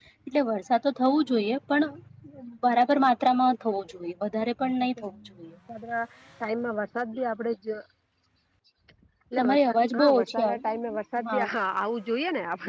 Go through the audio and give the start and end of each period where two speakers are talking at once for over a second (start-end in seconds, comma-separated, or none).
9.4-10.6